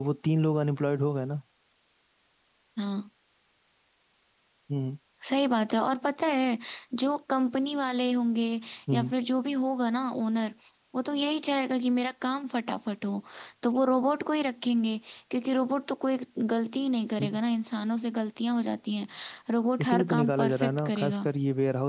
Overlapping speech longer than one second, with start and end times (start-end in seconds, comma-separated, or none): 19.8-21.3